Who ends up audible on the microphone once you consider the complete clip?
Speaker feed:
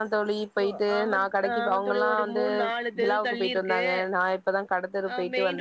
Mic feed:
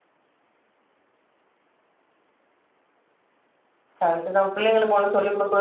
user only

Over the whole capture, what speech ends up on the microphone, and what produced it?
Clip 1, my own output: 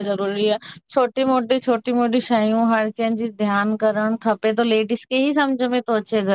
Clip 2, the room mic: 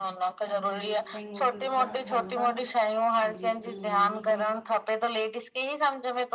both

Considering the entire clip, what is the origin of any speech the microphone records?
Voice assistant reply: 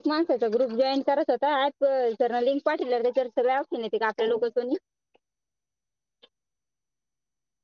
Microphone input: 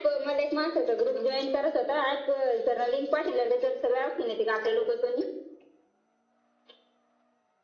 echo only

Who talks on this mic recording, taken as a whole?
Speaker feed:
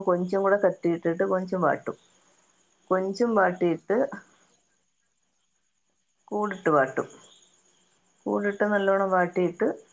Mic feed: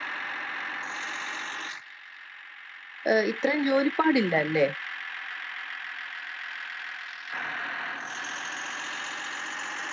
user only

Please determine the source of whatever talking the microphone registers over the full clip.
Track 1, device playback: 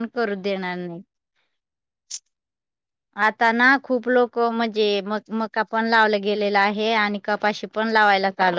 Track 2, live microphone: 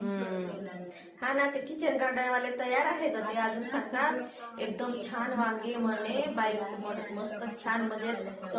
both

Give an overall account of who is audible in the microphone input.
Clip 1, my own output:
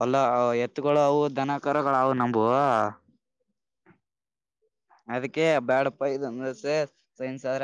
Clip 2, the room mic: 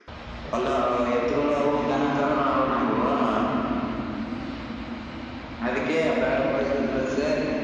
echo only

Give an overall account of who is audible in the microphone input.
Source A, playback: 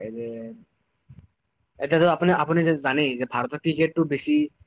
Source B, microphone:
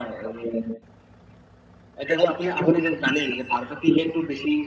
echo only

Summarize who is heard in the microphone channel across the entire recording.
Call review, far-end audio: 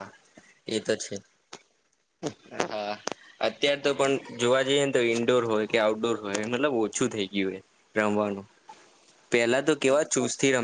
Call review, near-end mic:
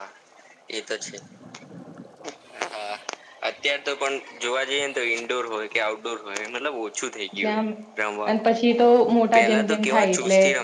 both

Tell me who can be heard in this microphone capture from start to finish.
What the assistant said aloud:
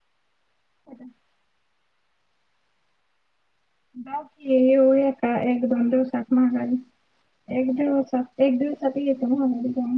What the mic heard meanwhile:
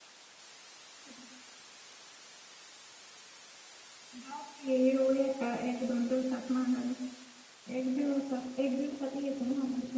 echo only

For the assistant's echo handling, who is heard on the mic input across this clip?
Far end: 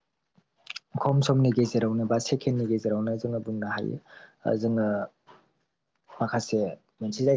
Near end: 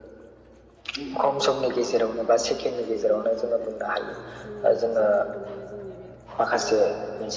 both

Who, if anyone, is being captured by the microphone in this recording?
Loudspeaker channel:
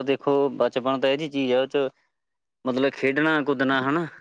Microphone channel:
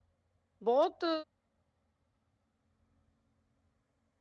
user only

